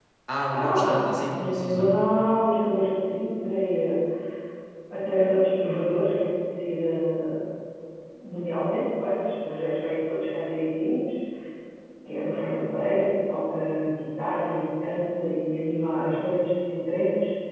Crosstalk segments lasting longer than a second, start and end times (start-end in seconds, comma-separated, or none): 0.5-2.0